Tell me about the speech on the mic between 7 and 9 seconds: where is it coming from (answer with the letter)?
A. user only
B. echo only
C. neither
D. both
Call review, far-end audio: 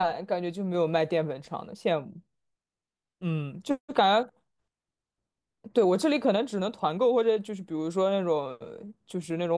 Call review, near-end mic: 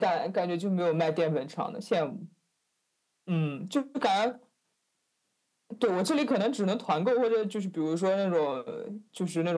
B